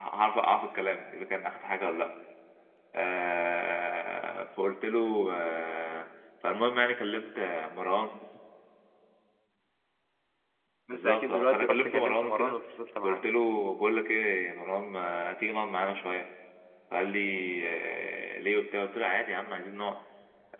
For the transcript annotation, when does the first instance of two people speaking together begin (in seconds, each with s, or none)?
10.9 s